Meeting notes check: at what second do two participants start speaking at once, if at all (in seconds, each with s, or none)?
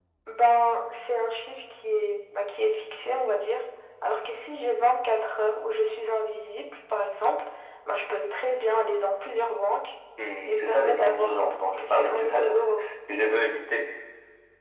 10.4 s